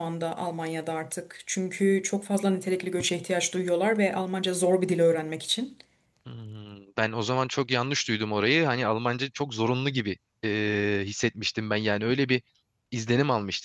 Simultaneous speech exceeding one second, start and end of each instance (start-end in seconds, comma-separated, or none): none